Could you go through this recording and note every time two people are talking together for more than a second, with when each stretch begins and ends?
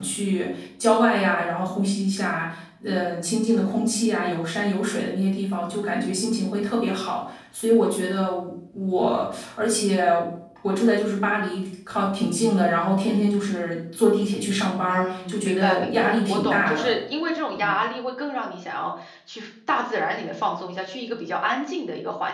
14.9-16.9

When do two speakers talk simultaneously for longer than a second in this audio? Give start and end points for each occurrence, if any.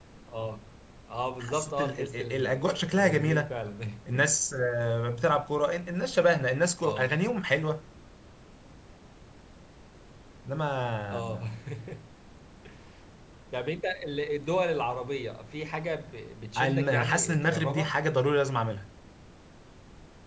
1.4-3.5, 16.6-17.9

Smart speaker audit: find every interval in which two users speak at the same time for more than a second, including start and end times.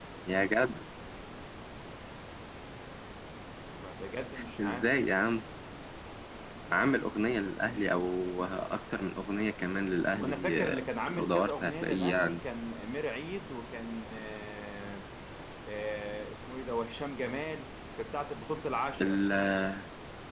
10.1-12.2

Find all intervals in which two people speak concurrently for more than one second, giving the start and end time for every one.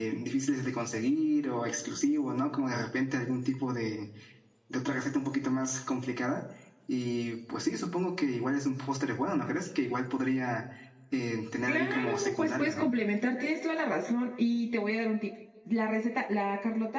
11.7-12.9

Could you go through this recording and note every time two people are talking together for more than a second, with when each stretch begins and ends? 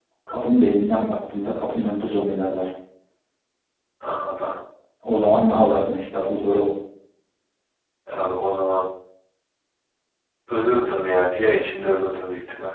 none

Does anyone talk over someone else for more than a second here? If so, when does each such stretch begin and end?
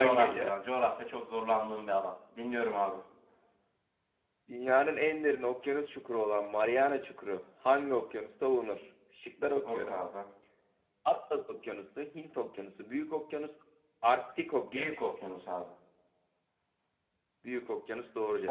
none

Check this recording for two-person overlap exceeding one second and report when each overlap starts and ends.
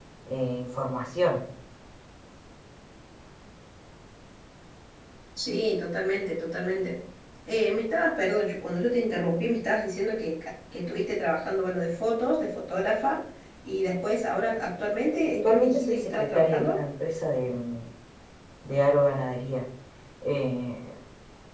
15.3-16.8

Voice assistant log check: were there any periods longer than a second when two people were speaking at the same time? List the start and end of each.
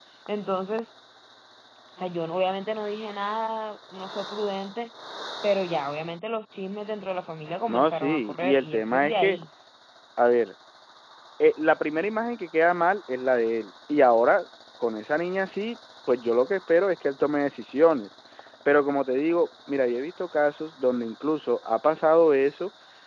7.7-9.4

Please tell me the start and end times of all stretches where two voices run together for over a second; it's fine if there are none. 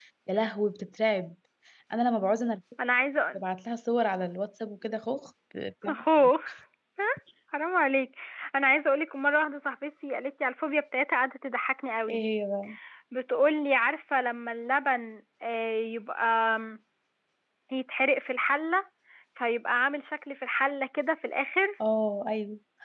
none

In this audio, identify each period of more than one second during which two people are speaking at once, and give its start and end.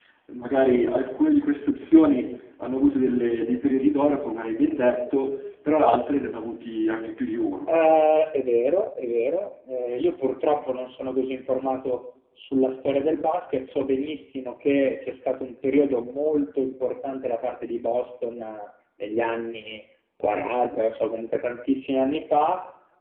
none

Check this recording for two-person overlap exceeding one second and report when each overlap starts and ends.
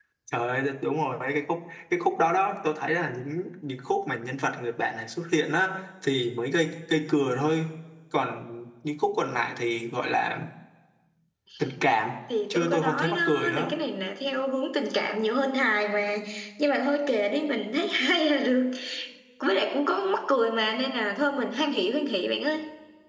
12.5-13.7

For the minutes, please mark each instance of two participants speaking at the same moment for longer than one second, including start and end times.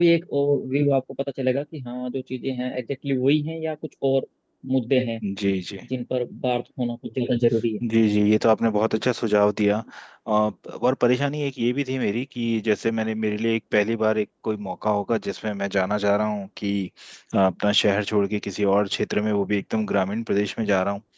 none

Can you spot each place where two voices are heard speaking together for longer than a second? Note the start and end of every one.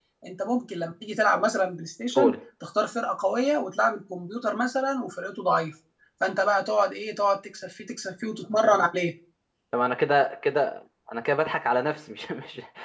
none

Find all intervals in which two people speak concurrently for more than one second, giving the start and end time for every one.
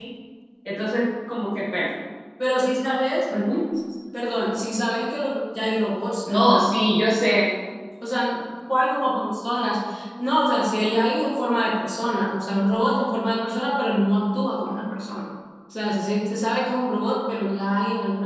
none

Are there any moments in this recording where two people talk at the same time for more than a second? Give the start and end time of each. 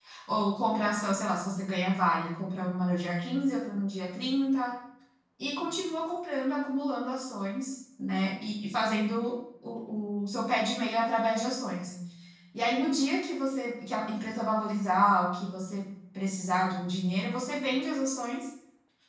none

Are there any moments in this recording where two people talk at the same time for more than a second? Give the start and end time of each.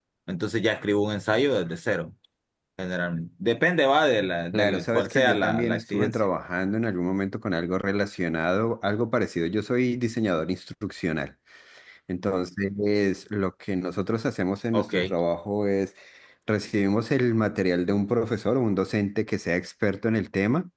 4.5-6.2

